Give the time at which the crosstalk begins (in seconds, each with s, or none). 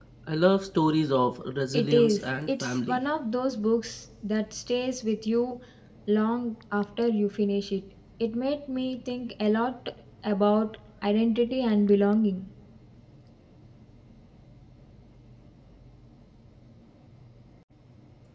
1.7 s